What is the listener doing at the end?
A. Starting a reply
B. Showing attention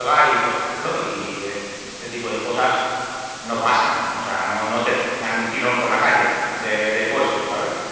B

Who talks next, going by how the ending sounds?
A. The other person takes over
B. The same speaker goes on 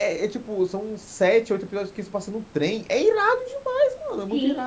A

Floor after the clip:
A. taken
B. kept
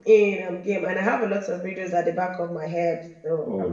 A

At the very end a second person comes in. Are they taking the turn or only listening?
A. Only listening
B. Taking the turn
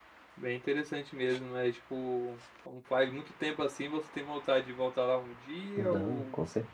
B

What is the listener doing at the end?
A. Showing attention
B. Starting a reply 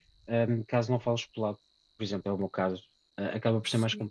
A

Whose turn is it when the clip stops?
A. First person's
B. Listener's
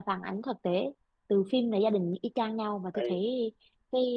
A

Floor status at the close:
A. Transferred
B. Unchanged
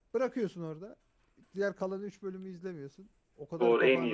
A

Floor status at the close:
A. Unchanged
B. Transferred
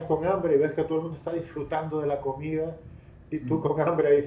A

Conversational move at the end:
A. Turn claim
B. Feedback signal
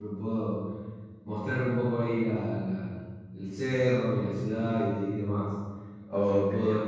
B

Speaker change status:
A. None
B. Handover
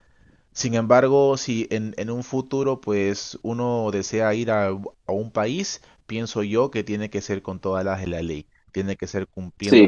B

